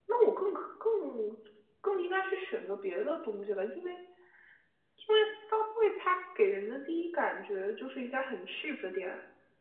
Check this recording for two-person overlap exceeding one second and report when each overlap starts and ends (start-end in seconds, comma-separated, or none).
none